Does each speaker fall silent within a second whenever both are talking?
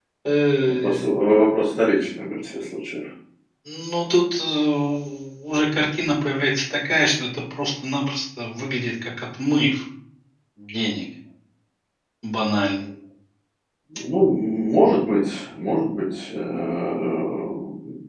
Yes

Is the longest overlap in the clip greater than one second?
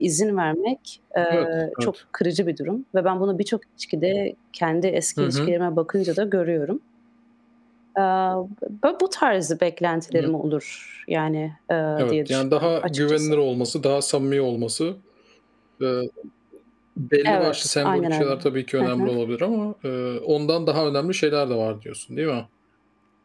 Yes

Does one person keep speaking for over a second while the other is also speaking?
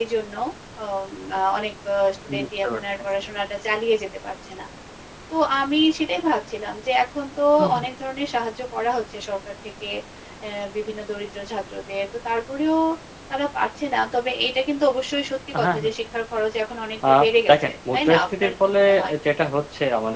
Yes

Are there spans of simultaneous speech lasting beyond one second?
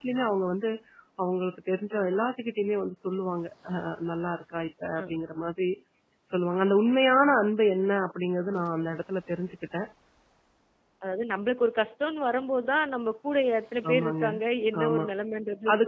No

